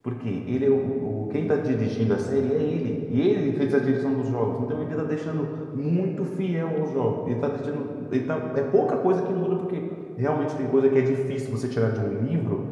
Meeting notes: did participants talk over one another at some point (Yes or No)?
No